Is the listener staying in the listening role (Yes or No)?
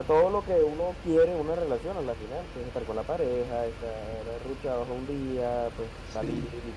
Yes